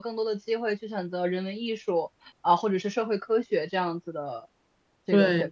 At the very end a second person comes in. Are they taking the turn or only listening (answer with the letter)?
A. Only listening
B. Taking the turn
B